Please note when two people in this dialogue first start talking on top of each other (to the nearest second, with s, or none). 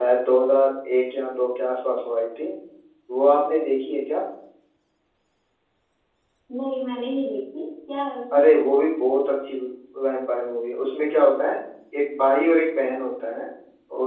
none